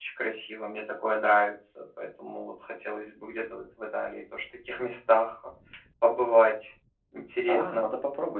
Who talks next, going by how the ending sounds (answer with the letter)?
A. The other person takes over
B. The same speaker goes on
A